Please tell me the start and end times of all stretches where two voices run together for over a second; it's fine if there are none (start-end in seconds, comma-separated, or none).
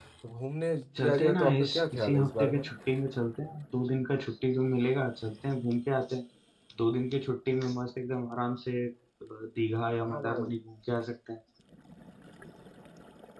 1.0-2.7